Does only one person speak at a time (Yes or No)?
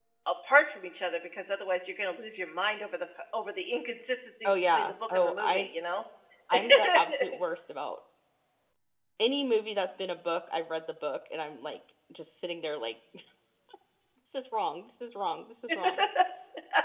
No